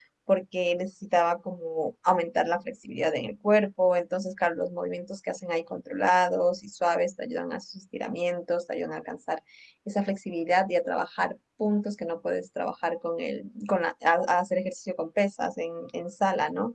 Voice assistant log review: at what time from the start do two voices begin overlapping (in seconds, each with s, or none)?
none